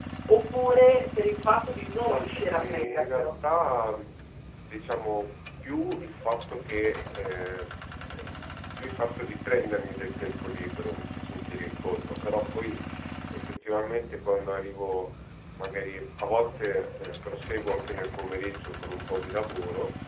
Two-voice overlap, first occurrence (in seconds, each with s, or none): 2.0 s